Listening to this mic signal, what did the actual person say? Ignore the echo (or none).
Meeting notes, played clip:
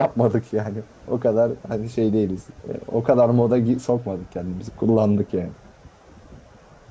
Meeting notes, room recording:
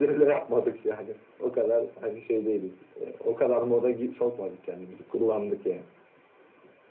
none